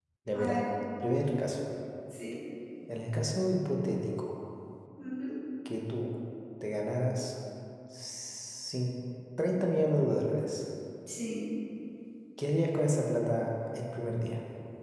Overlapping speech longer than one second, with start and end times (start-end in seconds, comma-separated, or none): none